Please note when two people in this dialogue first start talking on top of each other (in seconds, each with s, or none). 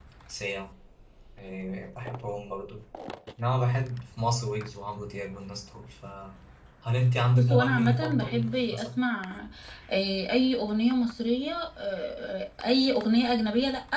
7.3 s